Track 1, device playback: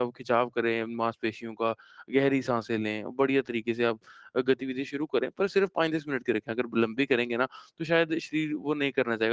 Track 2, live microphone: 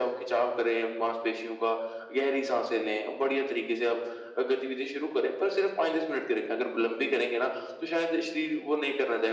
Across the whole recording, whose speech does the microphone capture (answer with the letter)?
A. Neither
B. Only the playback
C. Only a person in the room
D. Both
B